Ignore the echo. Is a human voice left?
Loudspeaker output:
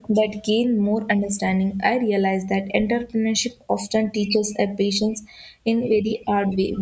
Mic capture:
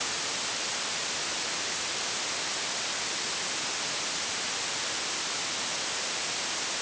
No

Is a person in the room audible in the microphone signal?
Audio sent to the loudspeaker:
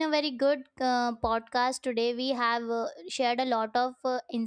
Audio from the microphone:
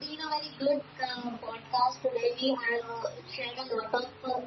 No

